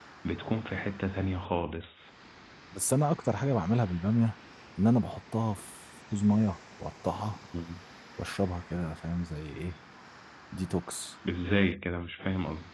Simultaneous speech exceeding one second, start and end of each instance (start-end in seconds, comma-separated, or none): none